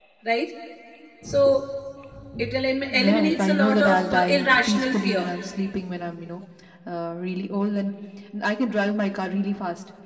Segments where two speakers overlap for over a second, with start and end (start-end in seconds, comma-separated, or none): 2.9-5.3